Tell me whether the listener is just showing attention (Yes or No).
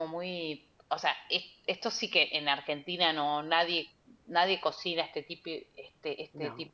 Yes